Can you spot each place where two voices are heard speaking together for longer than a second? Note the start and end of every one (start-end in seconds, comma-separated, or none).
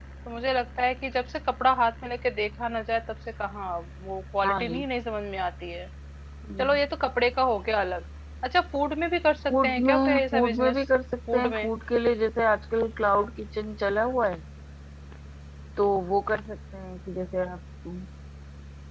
9.5-10.8